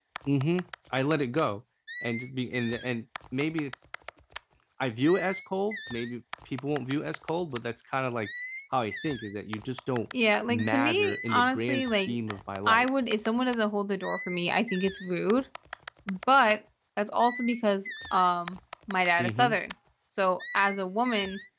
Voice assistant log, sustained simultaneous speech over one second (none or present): present